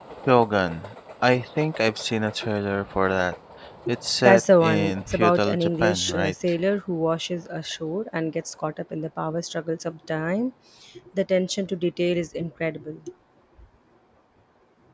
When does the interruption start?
4.2 s

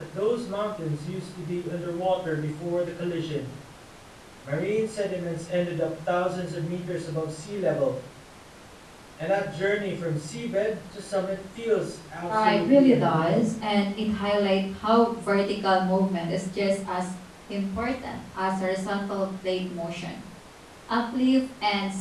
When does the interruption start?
12.3 s

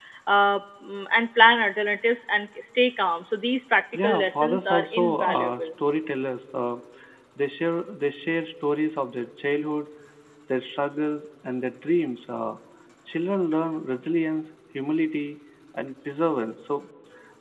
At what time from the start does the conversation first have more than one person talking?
3.9 s

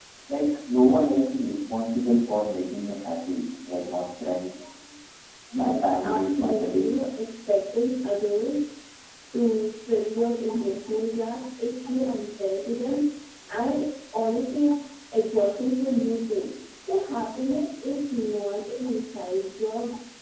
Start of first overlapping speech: 5.5 s

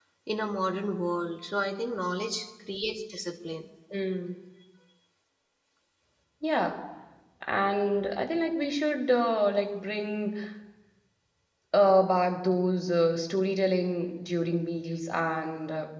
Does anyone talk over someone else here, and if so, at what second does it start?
none

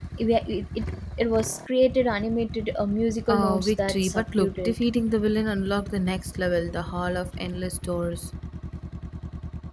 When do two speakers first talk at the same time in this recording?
3.3 s

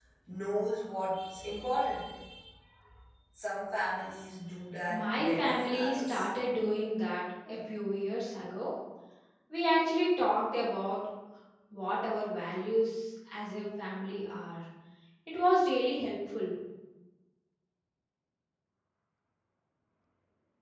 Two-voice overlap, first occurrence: 4.9 s

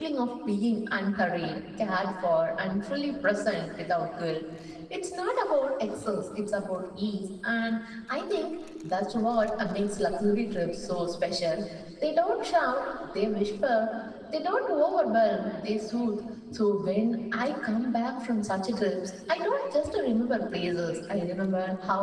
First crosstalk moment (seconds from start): none

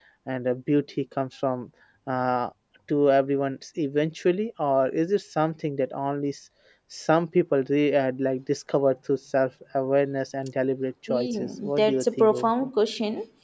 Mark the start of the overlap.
11.1 s

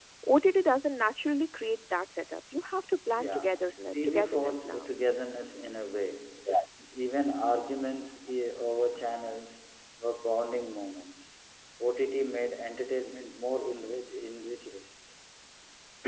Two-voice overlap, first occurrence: 3.1 s

